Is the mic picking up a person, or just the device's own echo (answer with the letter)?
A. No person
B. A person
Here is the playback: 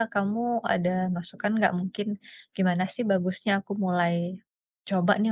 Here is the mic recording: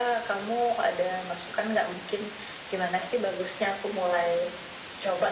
A